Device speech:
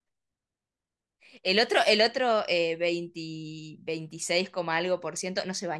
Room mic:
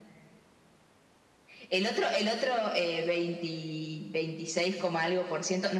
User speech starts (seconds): none

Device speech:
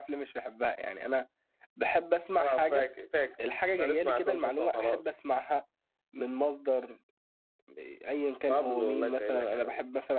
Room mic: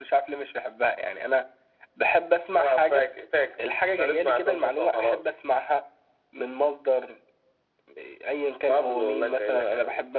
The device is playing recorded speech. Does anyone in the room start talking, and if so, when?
none

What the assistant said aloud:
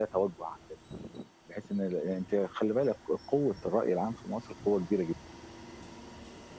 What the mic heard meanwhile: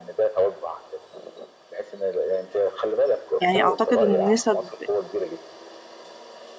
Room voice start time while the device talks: 3.4 s

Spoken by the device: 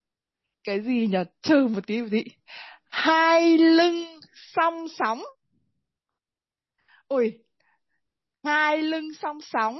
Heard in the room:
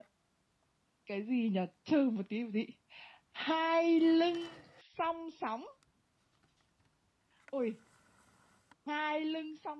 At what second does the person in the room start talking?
none

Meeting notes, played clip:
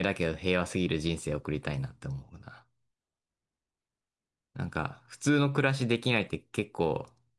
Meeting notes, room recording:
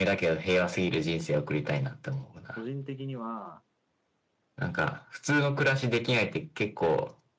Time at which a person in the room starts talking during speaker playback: 2.5 s

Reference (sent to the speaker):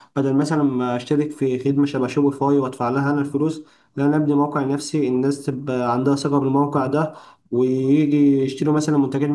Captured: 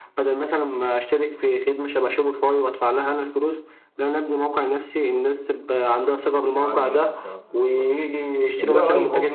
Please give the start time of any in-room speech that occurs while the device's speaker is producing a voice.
6.5 s

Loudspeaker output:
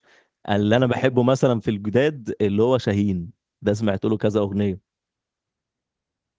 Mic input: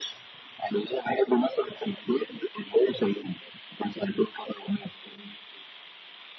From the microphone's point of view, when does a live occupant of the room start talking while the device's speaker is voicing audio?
none

